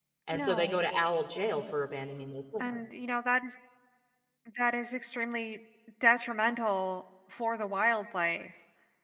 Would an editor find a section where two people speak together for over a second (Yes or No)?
No